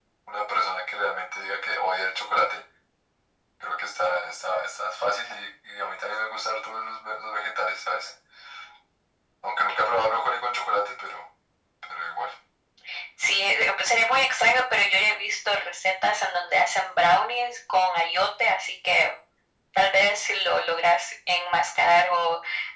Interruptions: none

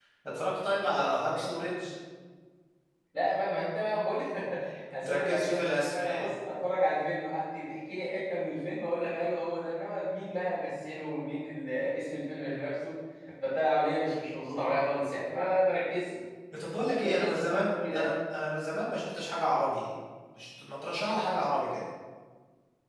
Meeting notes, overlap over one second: present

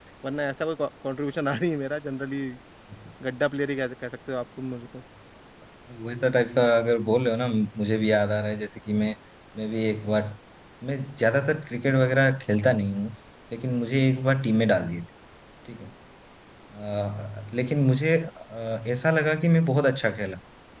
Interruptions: none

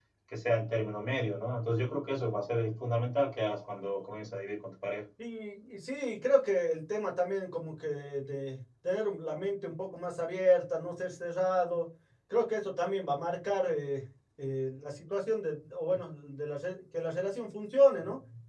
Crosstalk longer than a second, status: none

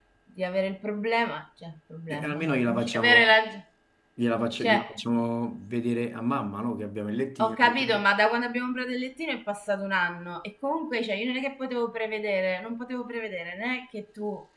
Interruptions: present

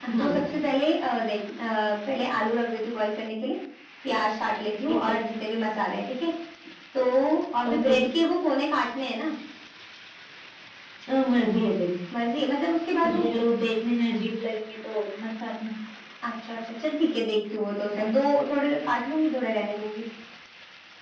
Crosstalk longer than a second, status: none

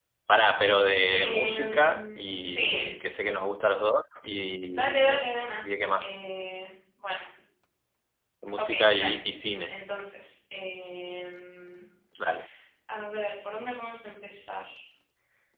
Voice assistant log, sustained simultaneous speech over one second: present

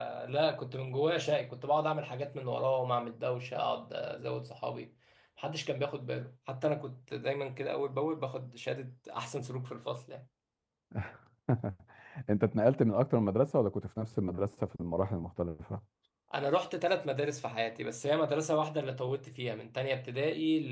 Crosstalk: none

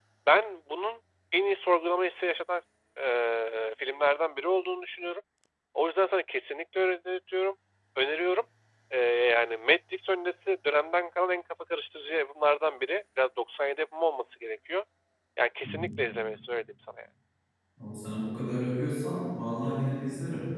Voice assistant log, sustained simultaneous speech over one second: none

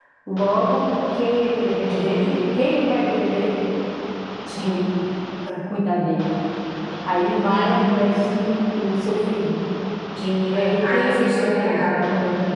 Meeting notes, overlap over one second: present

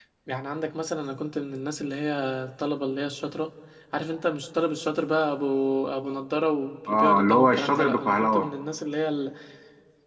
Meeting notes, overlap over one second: present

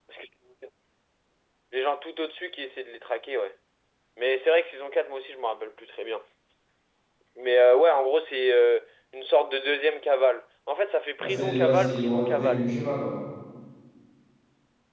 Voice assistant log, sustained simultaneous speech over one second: present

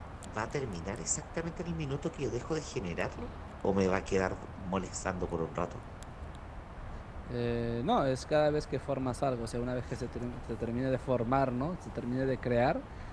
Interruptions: none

